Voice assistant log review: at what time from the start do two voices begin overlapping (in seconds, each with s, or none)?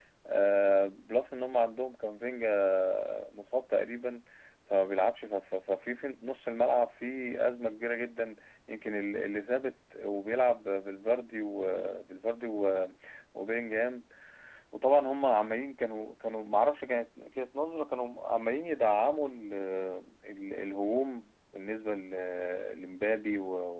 none